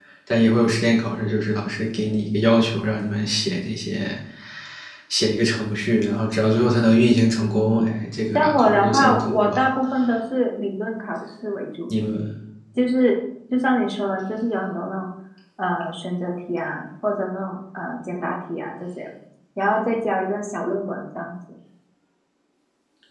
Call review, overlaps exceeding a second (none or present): present